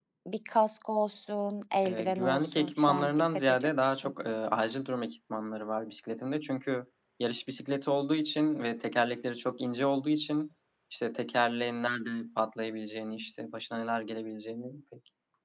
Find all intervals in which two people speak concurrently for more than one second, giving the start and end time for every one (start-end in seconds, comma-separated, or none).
1.8-4.1